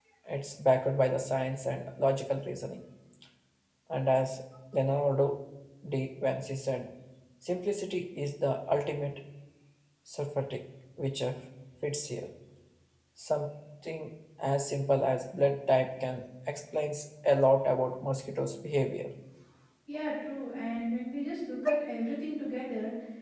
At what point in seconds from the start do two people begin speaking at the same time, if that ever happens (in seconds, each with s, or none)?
none